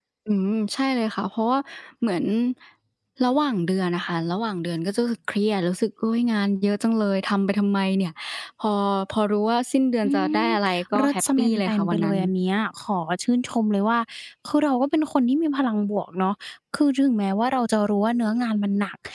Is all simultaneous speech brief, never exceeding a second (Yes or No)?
No